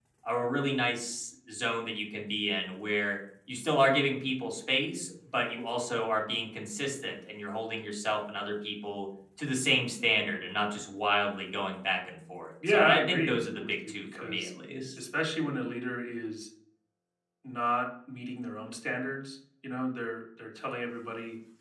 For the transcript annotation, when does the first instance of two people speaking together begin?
12.6 s

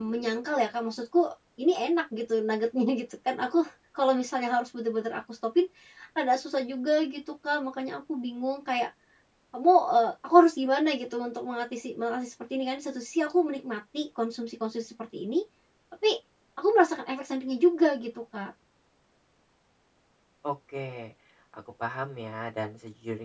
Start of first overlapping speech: none

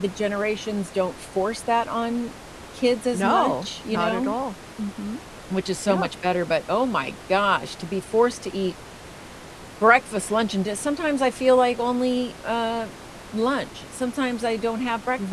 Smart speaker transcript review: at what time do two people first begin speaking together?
3.1 s

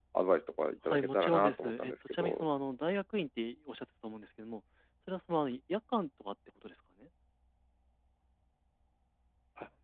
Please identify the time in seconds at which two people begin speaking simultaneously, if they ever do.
0.9 s

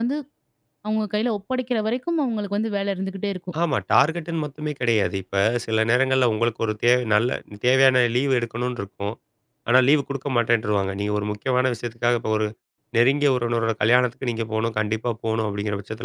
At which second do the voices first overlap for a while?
none

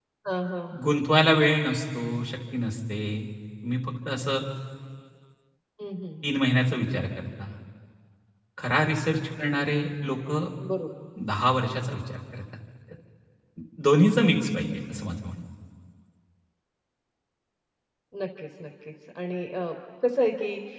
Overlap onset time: none

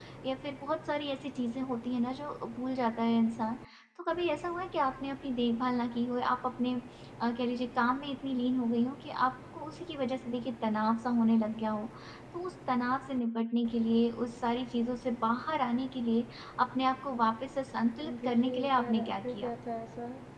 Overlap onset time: 18.0 s

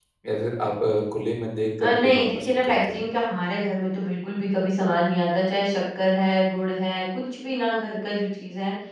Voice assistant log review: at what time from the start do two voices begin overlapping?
1.8 s

